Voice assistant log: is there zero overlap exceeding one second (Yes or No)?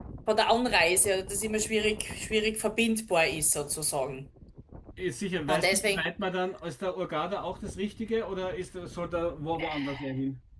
Yes